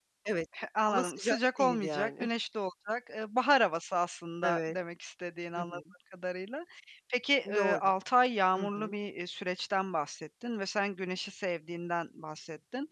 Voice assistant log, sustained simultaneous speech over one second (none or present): present